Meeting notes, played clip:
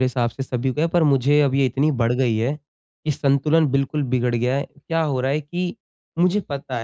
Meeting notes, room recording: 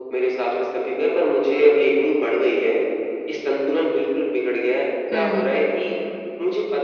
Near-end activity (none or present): present